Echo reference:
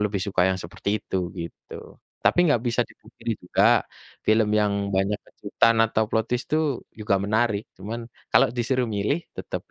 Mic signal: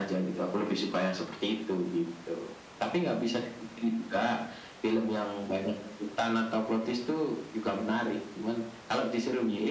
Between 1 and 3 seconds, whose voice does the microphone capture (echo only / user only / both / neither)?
echo only